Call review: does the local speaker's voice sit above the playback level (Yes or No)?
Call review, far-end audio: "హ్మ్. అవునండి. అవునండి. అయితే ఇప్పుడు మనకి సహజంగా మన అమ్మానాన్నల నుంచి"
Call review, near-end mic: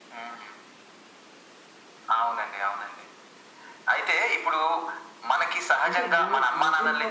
No